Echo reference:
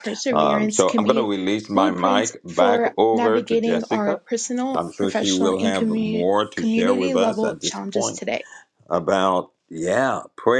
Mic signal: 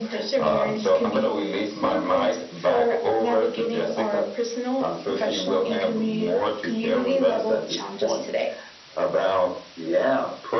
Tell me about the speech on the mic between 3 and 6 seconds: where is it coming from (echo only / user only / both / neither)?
echo only